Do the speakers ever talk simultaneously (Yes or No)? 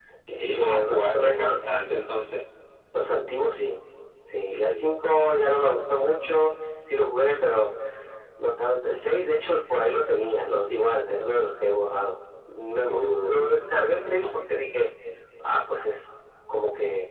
Yes